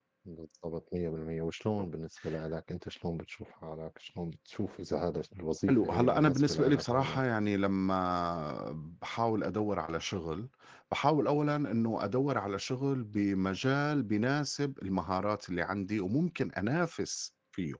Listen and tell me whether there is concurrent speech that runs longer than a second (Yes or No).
Yes